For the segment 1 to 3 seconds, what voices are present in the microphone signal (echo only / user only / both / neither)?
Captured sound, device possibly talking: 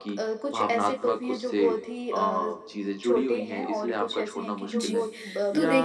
echo only